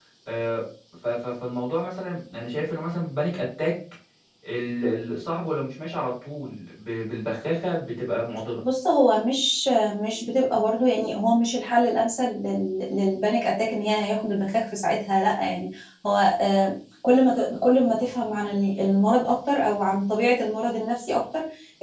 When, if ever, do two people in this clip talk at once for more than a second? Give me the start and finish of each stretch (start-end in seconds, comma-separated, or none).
none